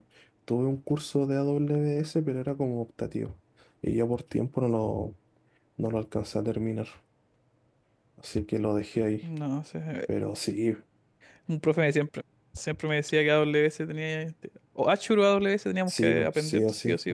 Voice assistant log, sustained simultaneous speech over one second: present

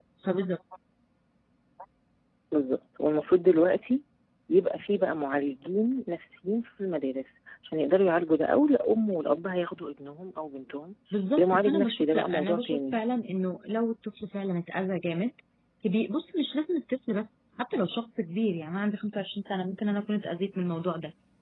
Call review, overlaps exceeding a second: present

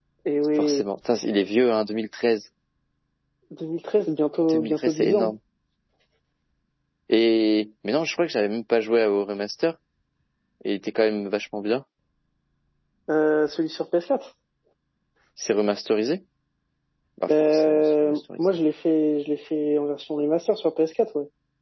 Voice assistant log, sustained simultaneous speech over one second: present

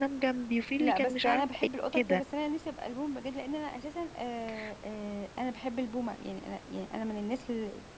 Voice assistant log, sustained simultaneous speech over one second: present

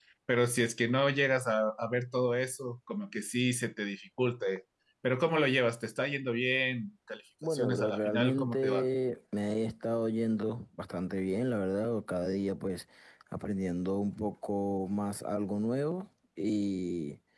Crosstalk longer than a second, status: present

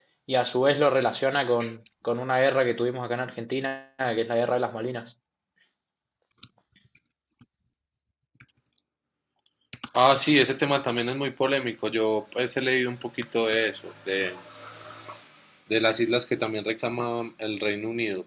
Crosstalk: none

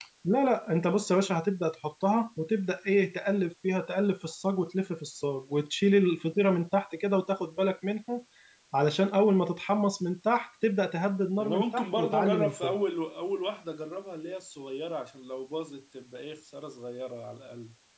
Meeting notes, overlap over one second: present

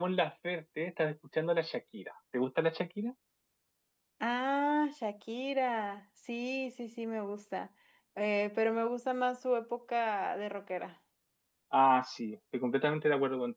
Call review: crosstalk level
none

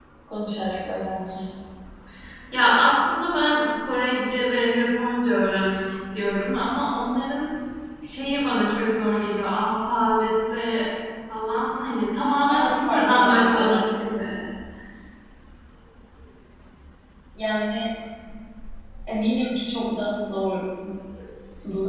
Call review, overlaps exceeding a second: present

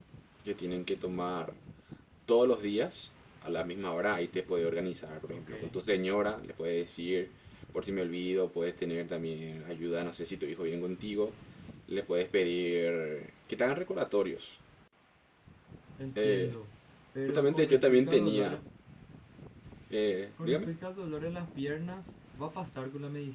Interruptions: present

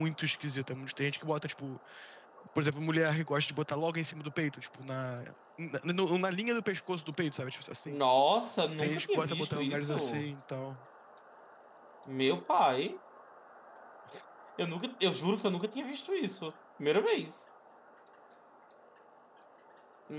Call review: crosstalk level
present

